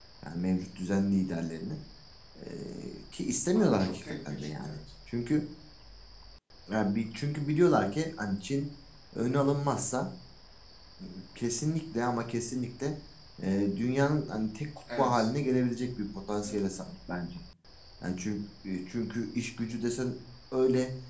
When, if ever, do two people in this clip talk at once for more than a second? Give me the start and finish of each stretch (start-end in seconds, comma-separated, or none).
3.6-4.8